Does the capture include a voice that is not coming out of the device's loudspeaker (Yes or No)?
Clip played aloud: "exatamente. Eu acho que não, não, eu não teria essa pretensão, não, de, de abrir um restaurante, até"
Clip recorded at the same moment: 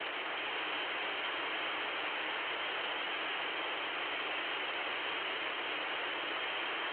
No